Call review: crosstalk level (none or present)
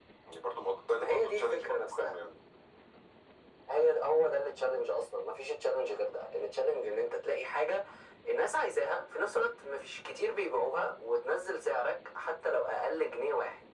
present